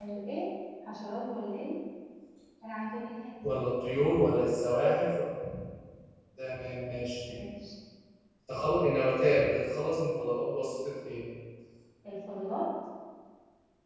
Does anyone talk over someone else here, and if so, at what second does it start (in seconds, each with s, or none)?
none